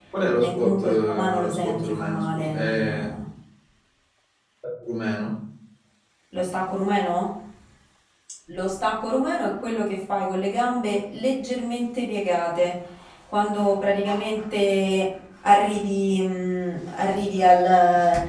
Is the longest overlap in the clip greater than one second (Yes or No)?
Yes